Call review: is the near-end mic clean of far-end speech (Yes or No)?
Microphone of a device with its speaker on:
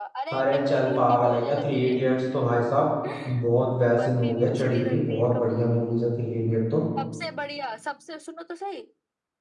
No